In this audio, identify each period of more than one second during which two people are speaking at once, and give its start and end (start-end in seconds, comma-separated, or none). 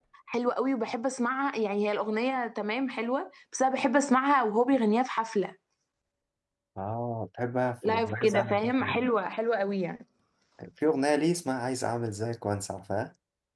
7.8-9.0